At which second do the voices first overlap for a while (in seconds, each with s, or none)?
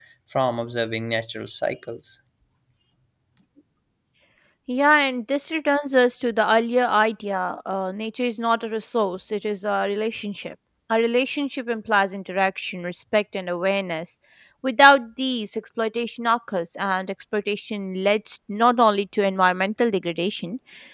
none